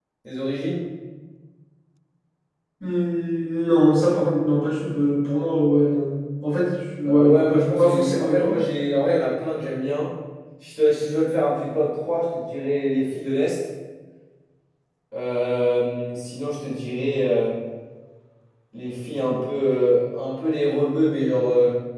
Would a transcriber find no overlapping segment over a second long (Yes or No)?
No